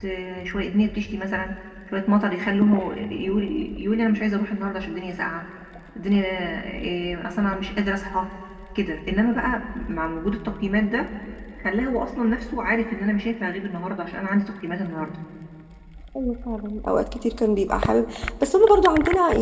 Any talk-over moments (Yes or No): No